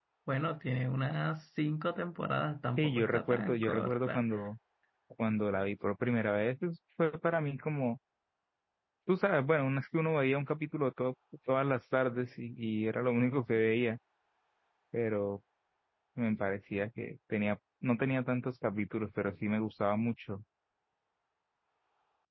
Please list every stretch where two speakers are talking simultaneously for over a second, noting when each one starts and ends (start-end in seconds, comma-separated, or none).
2.8-4.2